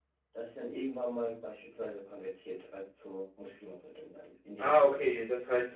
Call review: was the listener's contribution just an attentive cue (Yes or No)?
No